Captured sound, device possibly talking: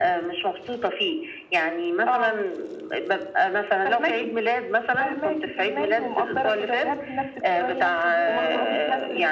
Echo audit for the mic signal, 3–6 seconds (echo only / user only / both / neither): echo only